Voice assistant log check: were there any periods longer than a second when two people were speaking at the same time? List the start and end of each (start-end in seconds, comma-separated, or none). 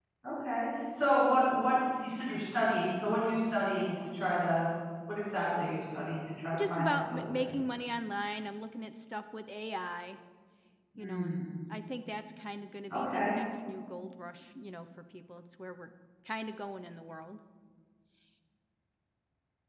6.5-7.8